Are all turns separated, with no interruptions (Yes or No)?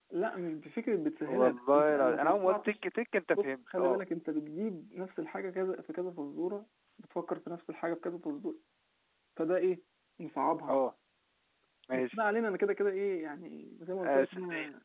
No